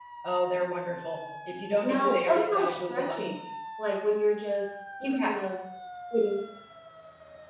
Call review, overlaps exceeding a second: present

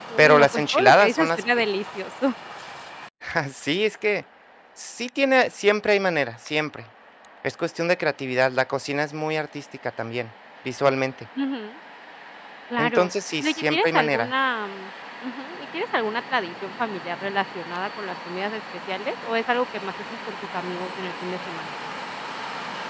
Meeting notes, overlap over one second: present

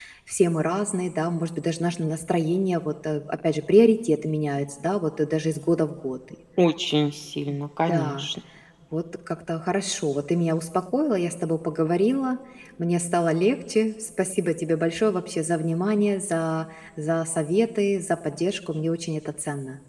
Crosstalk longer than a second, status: none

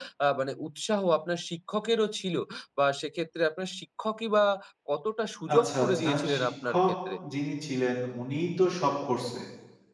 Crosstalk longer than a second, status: present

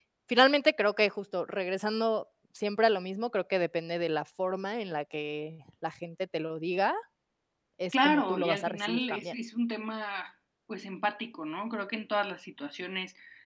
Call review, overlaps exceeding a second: present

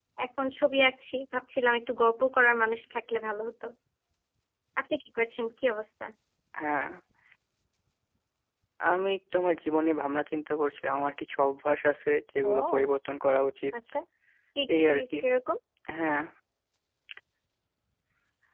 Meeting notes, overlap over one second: none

